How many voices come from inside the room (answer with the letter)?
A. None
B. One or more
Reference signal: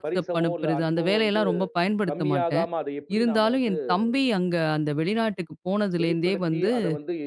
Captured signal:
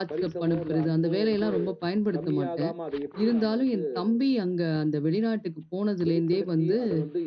A